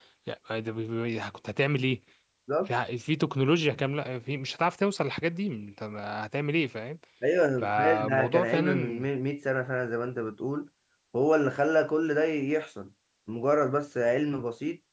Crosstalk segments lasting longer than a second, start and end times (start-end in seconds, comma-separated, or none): 7.6-9.1